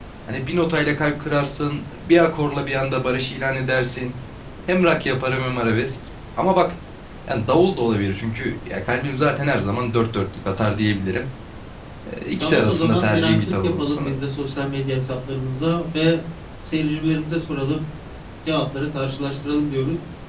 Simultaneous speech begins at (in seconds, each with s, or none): 12.4 s